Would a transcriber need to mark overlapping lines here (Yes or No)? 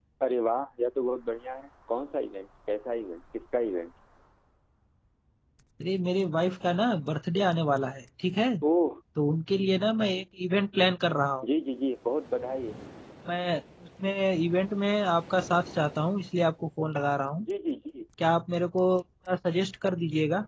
No